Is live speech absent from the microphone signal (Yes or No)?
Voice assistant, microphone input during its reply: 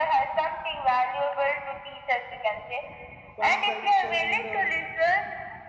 No